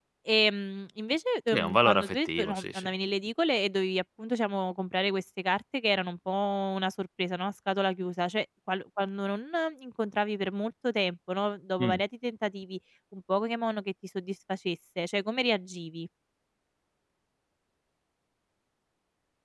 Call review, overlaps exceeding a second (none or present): present